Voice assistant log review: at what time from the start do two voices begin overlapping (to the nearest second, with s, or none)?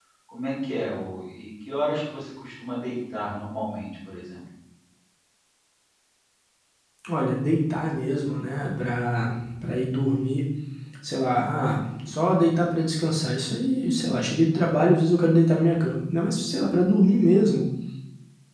none